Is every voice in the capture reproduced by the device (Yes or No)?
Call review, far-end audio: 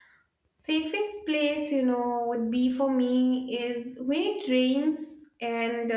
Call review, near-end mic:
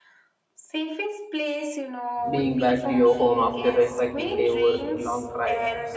No